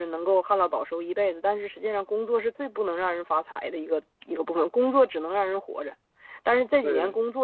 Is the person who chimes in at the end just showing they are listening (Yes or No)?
Yes